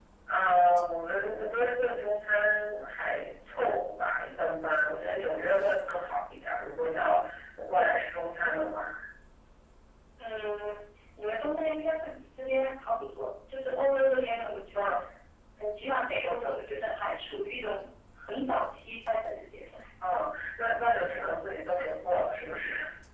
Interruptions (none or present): none